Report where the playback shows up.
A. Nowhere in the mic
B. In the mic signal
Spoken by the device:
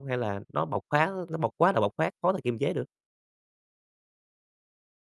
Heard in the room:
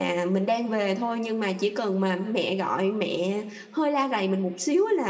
A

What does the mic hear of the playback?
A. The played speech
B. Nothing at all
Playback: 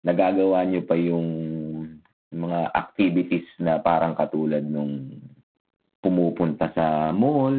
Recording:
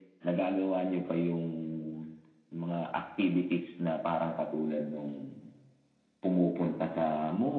A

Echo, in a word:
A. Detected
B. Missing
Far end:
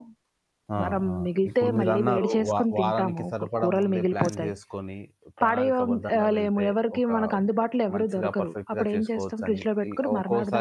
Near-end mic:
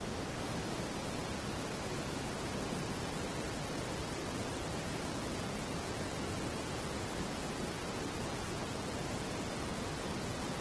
B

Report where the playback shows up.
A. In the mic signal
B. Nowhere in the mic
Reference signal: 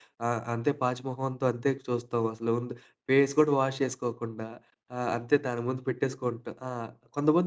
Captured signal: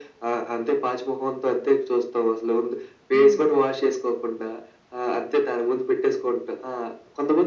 A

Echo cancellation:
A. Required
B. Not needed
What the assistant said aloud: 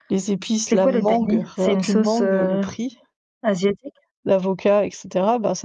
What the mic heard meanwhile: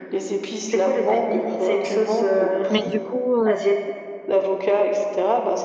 A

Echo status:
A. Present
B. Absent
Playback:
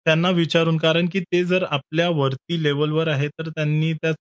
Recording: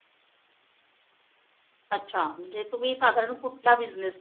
B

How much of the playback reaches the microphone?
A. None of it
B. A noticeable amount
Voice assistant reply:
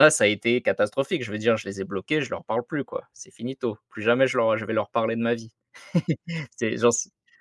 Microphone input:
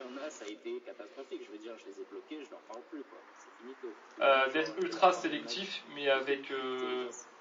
B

